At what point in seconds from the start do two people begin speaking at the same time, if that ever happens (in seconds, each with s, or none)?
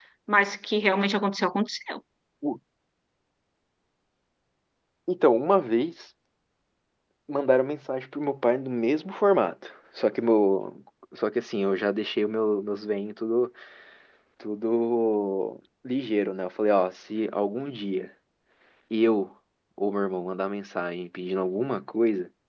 none